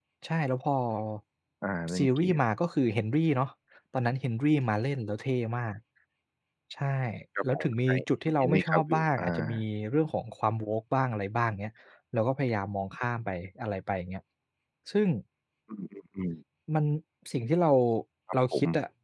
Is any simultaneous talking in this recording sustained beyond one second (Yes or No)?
Yes